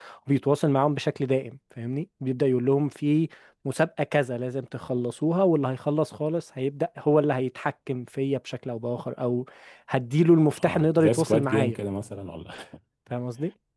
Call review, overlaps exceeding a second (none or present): present